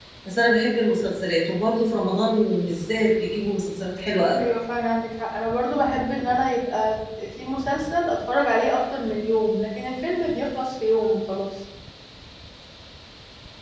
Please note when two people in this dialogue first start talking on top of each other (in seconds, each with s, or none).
none